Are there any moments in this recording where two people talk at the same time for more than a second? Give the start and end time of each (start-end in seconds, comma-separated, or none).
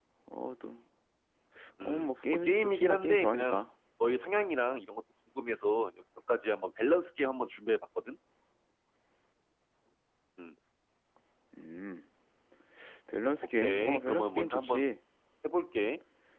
1.8-3.6, 13.6-14.8